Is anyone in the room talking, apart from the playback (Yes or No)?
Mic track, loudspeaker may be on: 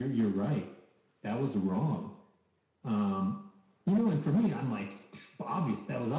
No